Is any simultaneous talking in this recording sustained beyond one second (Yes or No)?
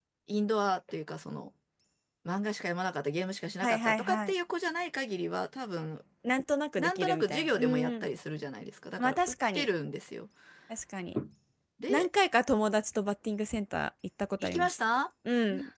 Yes